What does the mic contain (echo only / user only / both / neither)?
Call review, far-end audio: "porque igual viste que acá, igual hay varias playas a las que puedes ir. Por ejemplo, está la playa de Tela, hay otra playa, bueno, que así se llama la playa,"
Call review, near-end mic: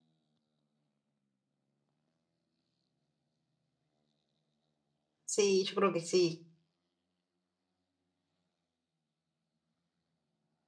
user only